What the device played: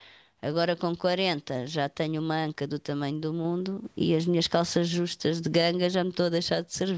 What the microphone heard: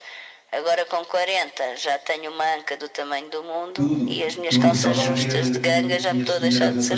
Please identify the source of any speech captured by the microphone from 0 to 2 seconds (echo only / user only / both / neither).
echo only